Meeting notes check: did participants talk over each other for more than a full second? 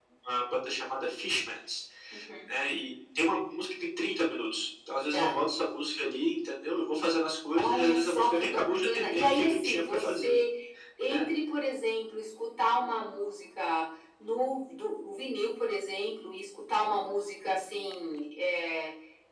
Yes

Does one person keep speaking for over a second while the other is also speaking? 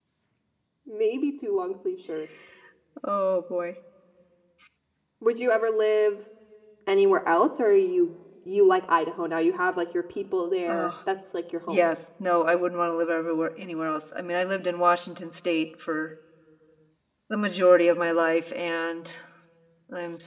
No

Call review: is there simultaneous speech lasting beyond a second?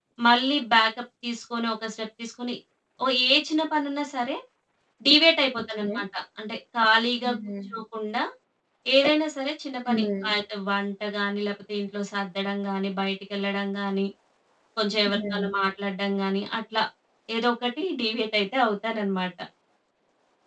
No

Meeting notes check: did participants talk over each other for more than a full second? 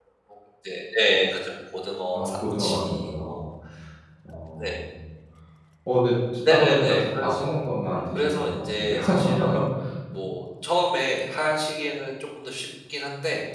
Yes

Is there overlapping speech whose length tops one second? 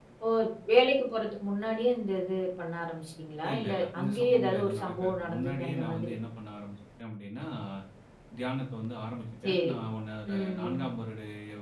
Yes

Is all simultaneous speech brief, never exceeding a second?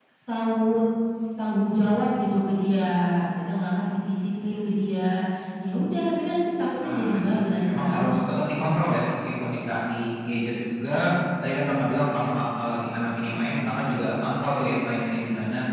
No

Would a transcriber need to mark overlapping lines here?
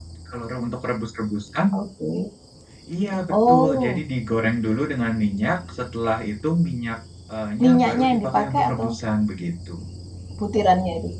Yes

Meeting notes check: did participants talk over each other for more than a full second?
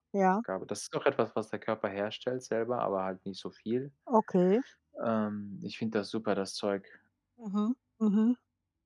No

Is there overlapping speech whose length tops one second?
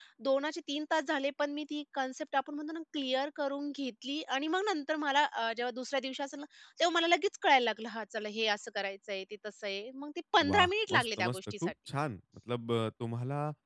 Yes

